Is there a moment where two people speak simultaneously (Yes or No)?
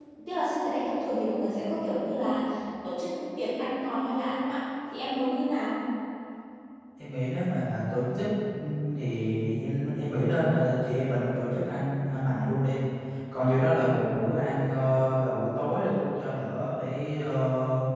No